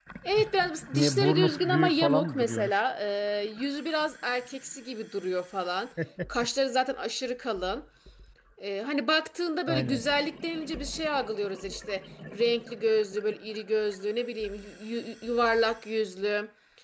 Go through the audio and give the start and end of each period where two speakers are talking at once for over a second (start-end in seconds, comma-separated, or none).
0.9-2.8